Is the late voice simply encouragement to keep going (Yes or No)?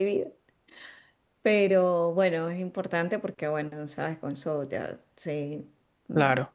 Yes